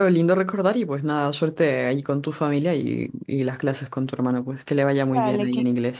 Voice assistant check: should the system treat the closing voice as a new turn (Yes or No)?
Yes